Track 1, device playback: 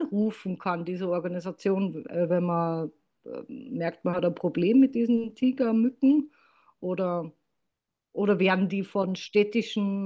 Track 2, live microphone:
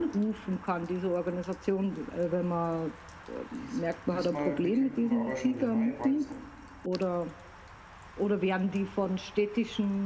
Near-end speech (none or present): present